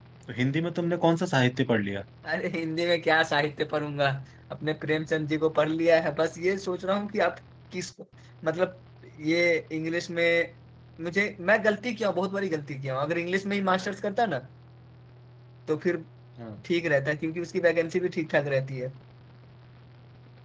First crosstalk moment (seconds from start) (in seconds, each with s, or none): none